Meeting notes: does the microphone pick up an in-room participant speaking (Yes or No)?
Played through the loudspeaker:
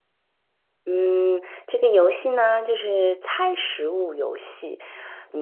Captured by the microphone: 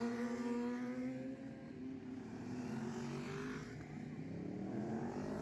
No